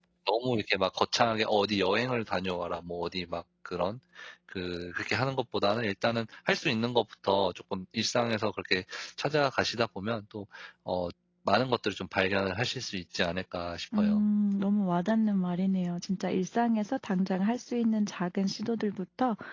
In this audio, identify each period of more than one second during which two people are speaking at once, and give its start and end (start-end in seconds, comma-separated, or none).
none